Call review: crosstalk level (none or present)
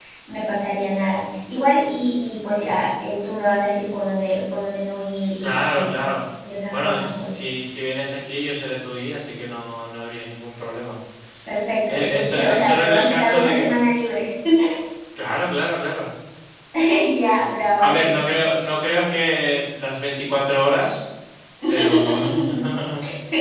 present